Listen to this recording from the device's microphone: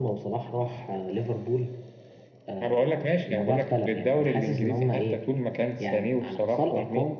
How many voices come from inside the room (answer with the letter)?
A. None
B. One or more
A